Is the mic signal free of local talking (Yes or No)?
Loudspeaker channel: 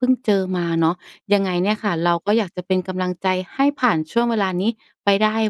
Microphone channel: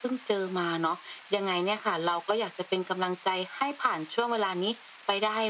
Yes